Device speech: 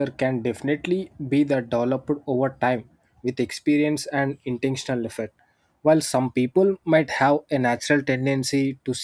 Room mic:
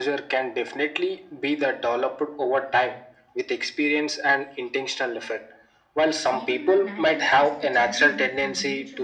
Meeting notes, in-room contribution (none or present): present